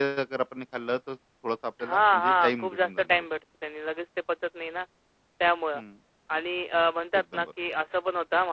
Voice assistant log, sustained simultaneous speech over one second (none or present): present